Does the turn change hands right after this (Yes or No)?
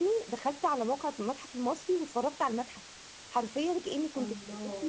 No